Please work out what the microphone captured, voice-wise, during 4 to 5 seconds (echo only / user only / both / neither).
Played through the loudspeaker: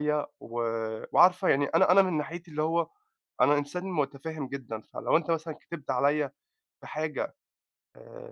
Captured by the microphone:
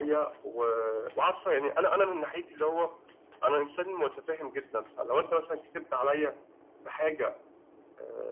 echo only